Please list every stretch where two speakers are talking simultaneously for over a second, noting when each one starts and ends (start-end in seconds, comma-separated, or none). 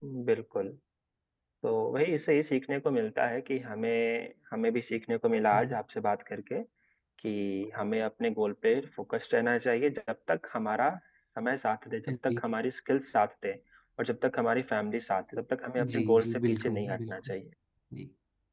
15.9-17.3